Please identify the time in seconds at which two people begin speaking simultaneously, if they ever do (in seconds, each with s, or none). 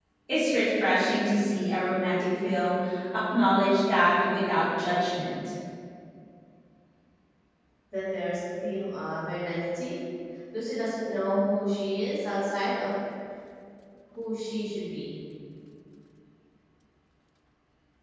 none